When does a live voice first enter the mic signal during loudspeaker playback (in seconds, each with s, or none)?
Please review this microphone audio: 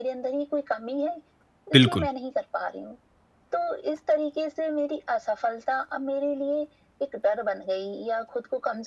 1.7 s